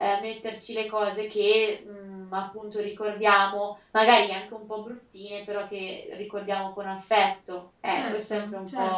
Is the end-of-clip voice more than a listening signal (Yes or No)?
Yes